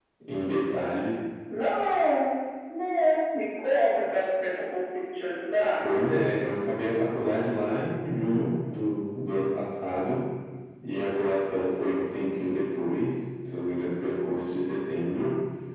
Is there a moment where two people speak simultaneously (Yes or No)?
No